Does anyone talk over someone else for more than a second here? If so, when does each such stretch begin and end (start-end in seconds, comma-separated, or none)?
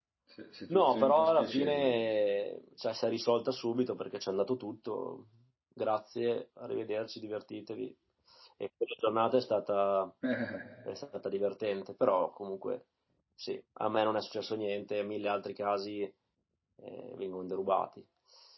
0.7-1.9